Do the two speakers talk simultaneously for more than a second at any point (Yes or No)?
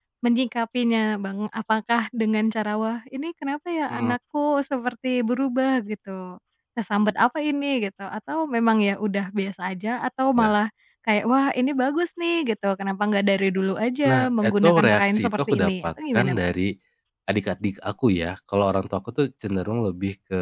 Yes